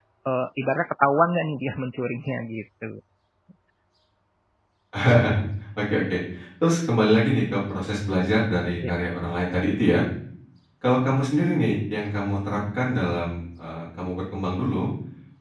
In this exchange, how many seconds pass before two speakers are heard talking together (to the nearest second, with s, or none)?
none